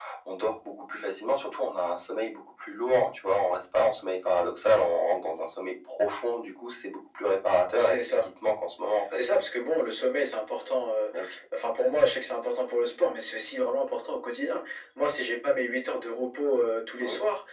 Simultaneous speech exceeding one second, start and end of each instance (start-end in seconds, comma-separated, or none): none